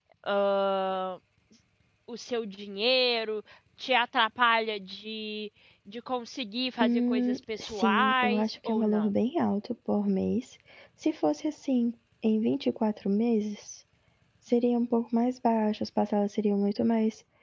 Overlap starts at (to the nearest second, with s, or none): 7 s